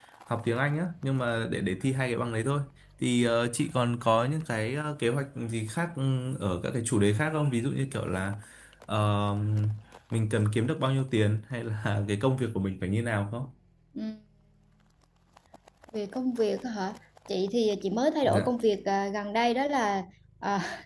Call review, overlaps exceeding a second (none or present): none